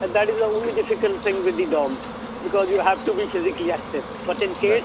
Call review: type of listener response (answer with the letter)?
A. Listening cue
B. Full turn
A